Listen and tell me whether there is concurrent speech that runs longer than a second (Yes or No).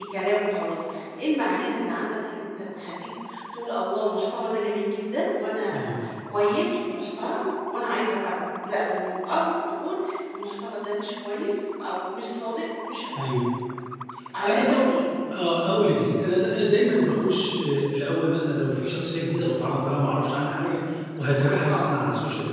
No